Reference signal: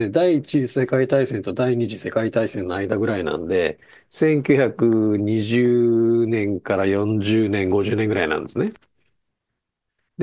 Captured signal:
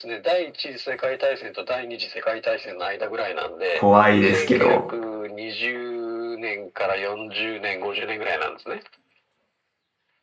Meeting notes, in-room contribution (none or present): present